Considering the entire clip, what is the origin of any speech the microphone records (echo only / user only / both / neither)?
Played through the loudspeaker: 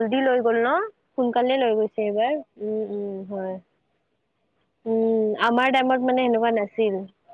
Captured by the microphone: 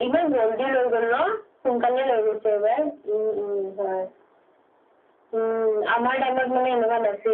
echo only